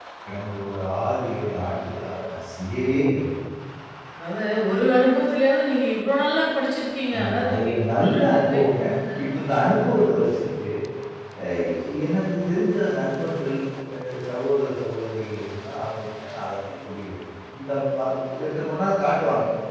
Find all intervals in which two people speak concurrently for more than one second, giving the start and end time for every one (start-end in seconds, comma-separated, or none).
7.2-8.8